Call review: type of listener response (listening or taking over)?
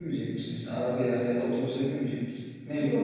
taking over